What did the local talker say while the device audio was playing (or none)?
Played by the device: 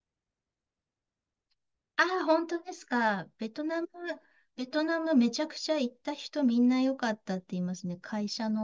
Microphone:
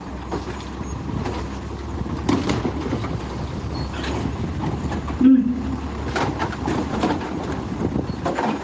うん。